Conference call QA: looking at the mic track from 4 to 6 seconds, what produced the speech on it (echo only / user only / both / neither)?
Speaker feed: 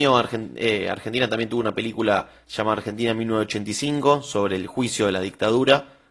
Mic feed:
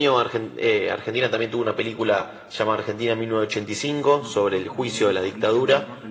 both